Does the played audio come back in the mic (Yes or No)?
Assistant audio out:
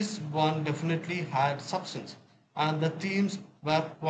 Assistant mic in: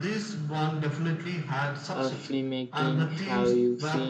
Yes